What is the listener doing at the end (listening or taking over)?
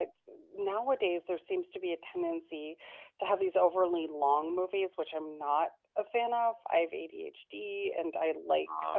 listening